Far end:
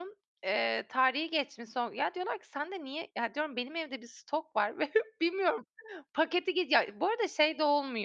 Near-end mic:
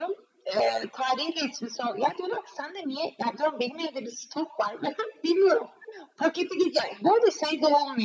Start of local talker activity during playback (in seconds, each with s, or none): none